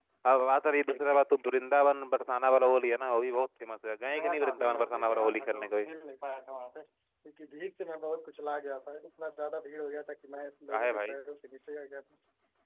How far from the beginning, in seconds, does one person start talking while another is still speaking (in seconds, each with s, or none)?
4.2 s